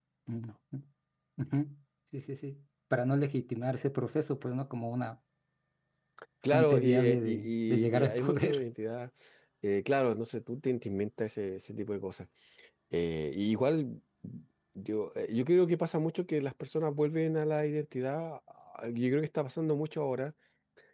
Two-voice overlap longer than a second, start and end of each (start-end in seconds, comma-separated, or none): 6.5-8.6